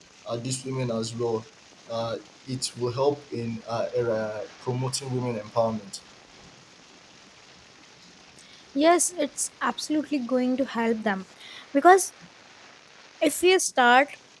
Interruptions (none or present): none